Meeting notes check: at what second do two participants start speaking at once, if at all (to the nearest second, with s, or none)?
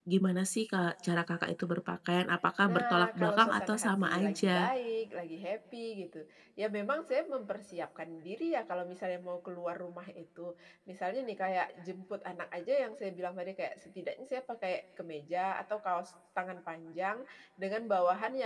3 s